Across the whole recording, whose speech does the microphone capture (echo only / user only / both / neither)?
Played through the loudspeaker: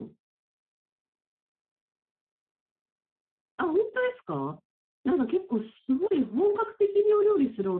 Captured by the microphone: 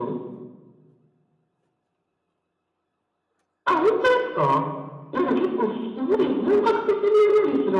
echo only